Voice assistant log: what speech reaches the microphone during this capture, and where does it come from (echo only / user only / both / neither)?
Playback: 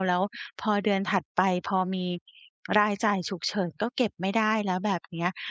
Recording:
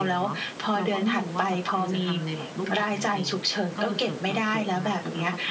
both